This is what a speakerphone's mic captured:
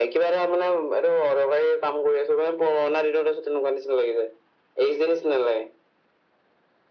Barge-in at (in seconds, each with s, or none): none